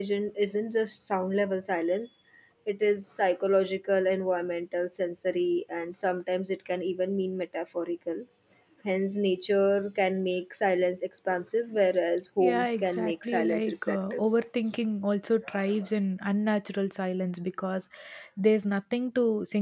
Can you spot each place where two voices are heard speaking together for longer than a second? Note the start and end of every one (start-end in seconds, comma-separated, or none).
12.4-14.2